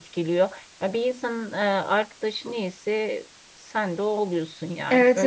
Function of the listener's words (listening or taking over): taking over